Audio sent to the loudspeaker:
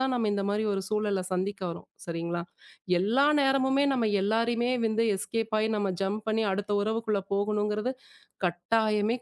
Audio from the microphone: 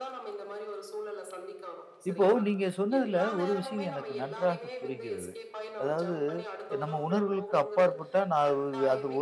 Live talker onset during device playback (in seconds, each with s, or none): 2.1 s